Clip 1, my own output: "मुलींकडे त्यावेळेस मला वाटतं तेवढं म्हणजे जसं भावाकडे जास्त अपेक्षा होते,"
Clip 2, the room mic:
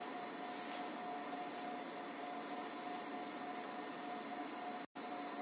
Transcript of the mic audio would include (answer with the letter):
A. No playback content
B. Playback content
A